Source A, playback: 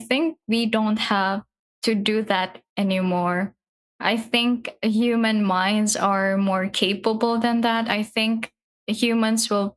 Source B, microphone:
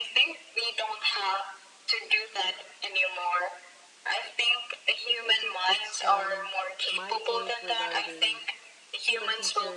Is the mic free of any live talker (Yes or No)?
No